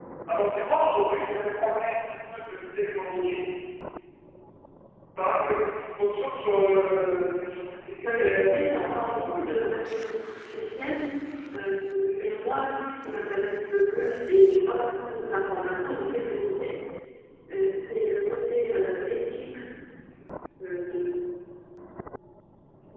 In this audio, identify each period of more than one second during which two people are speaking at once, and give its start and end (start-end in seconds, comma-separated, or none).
8.0-9.7